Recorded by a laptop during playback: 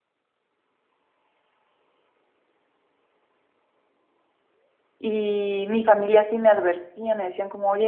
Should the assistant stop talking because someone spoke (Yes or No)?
Yes